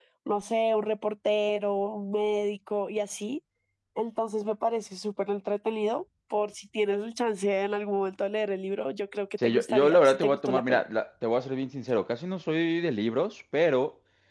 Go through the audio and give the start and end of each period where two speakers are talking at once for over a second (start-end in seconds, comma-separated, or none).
9.4-10.8